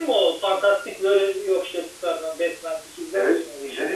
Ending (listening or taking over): taking over